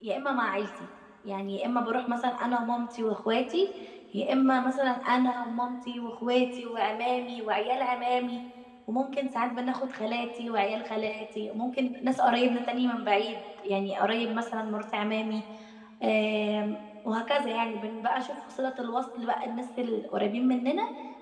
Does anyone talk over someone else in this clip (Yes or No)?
No